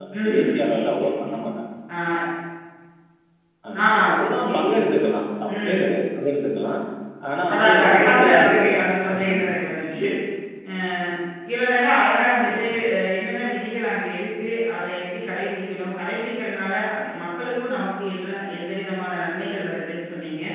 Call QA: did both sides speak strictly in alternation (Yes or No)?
No